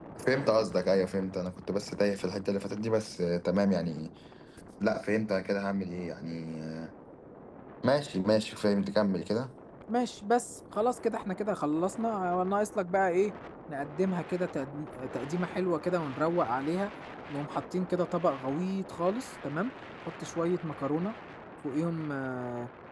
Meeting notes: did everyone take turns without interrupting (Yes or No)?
Yes